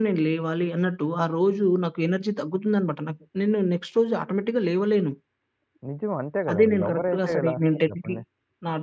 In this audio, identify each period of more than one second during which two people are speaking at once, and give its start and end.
6.5-8.2

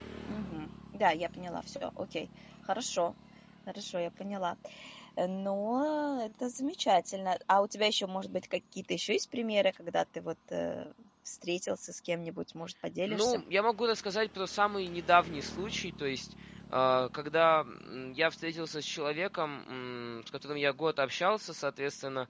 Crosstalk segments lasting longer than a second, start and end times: none

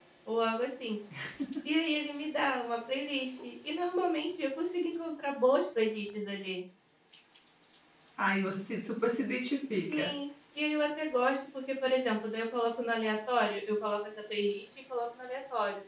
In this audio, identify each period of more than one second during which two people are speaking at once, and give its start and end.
none

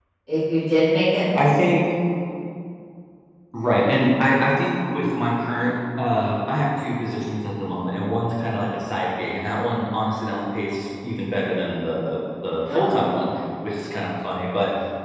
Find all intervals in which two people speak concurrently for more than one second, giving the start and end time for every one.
none

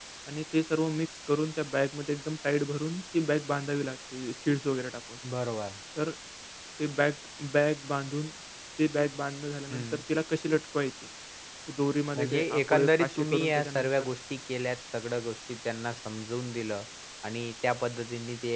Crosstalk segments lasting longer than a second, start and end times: 12.2-14.1

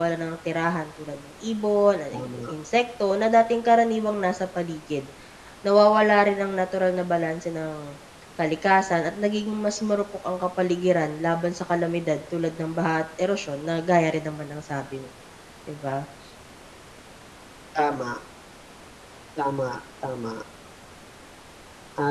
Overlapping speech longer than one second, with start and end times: none

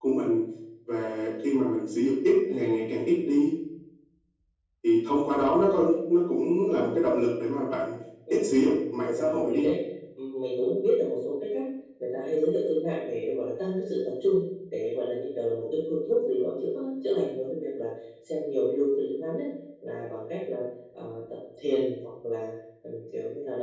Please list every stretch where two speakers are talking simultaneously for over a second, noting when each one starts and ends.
8.3-9.7

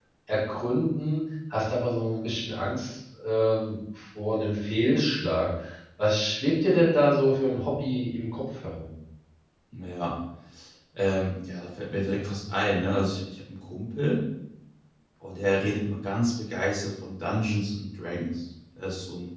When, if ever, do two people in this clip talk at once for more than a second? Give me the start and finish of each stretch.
none

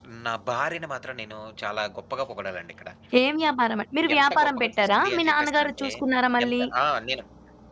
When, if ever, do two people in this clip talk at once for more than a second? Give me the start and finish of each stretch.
4.2-5.9

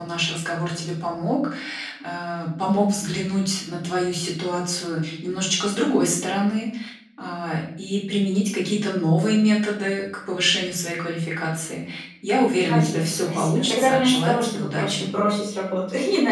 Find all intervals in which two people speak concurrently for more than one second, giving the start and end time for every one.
12.7-15.1

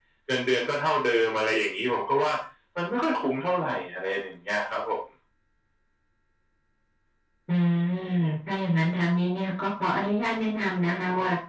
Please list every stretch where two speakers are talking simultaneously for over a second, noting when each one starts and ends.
none

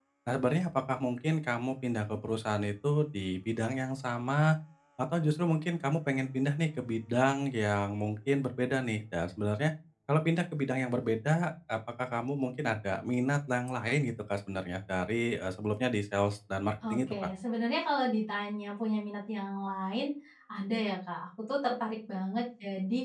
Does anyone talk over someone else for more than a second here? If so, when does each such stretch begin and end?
none

